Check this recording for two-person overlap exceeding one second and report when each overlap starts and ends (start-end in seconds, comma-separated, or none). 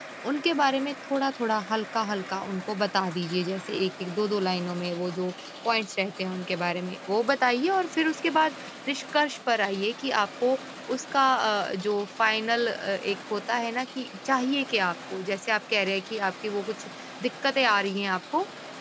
none